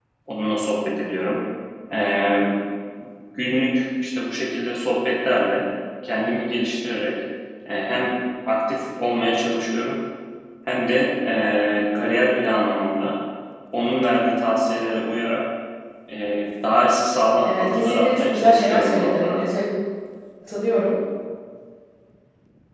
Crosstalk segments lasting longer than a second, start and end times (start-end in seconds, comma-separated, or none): 17.4-19.4